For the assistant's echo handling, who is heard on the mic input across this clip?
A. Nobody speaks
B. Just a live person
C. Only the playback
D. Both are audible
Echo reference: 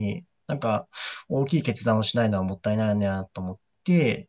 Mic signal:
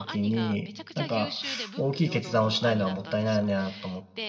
D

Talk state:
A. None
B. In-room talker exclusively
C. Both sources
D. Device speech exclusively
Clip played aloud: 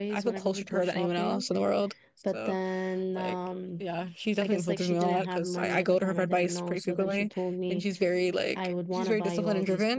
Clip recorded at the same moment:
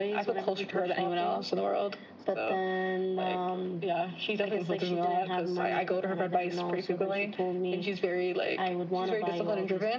D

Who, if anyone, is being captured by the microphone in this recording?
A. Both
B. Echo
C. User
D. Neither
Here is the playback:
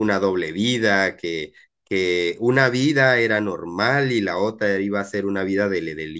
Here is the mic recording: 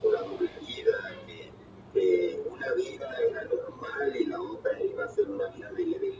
B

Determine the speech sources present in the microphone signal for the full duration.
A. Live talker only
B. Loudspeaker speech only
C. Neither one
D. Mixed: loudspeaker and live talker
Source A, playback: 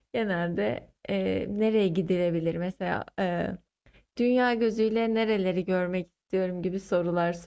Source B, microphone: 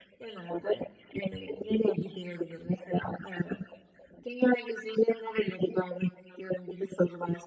B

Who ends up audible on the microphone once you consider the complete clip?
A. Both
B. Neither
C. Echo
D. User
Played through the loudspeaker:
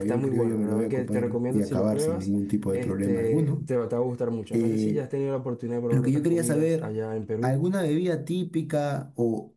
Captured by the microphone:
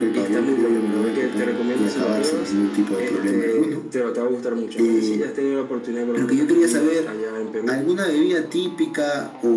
C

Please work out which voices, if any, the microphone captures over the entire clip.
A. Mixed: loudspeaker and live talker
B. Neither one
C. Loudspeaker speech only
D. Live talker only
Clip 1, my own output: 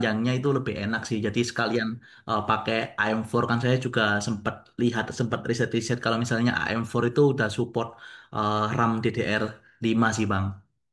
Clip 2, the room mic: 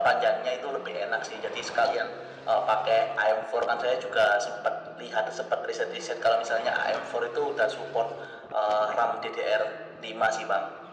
C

